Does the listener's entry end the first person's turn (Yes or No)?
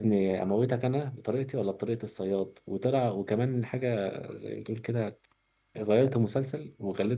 No